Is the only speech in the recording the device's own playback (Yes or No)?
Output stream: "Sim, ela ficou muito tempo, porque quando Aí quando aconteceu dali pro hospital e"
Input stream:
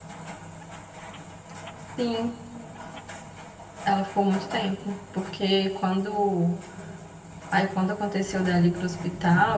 Yes